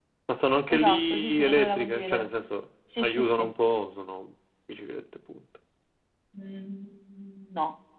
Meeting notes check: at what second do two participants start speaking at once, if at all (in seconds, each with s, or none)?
0.7 s